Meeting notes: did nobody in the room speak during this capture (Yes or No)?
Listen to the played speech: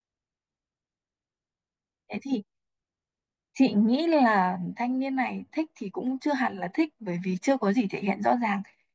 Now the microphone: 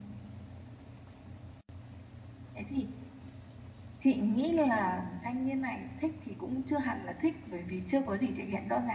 Yes